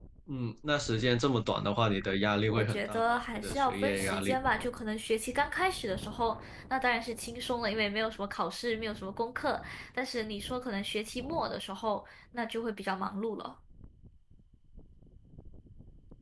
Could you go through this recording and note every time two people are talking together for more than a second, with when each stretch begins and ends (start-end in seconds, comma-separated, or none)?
2.5-4.4